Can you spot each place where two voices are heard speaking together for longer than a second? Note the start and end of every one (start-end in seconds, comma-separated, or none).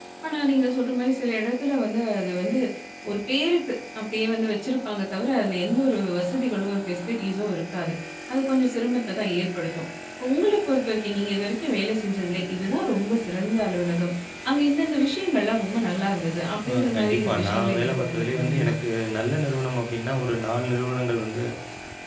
16.7-18.7